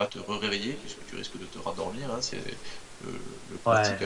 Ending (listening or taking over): listening